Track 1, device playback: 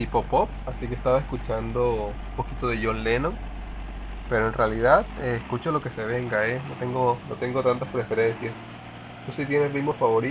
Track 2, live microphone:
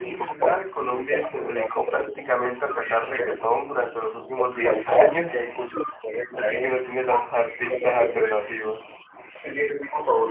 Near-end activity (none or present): present